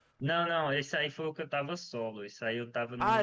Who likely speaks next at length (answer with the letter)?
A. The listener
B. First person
A